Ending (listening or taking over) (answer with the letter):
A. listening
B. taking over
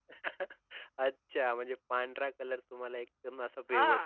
B